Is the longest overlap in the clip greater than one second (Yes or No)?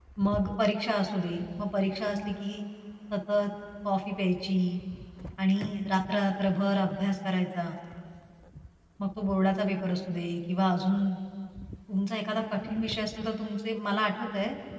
No